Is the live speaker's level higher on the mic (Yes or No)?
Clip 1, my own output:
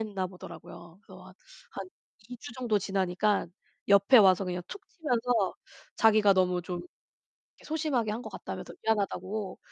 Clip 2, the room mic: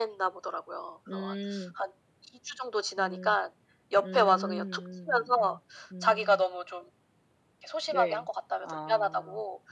No